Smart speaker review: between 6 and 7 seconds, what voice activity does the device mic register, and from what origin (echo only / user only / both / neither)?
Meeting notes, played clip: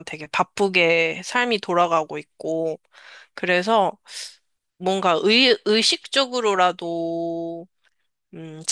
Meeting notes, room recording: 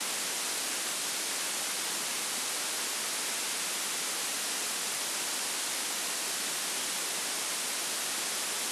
neither